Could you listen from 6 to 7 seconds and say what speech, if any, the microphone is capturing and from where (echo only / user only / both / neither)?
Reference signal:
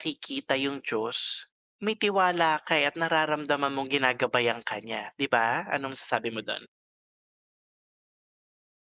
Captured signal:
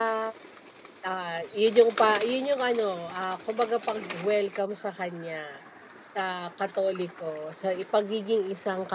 user only